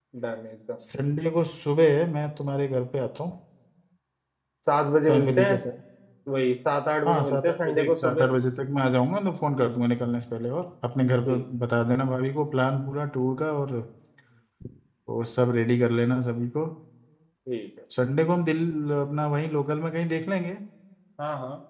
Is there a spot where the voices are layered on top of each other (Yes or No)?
Yes